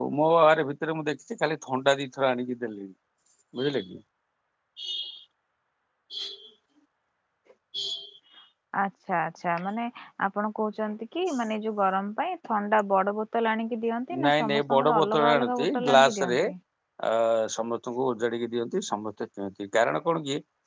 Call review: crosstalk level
present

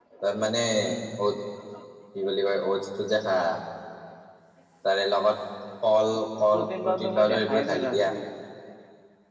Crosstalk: present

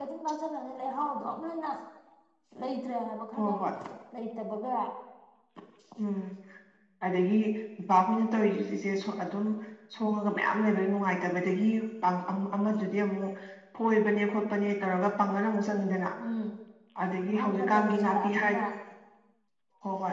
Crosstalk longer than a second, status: present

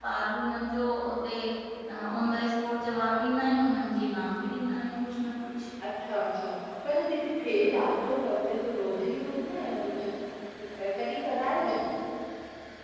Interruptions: none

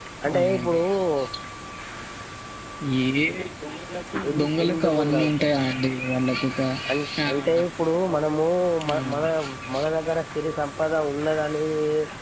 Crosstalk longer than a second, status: present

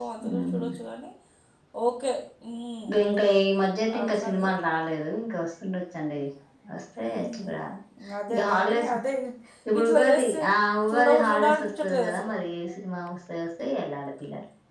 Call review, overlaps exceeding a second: present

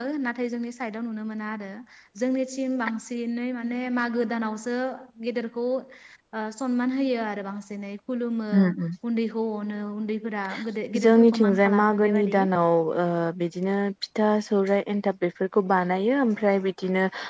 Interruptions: present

